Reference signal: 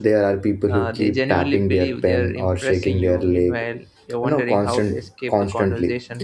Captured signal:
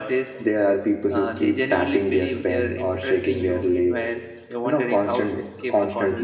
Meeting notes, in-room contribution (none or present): none